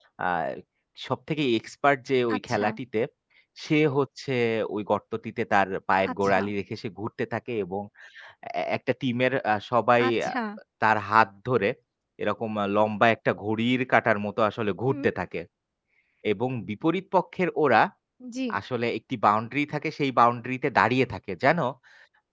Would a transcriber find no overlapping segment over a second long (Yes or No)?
Yes